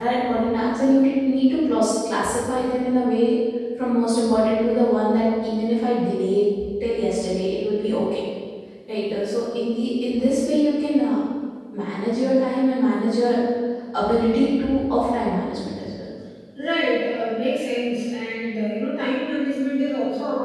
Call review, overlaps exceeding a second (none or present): none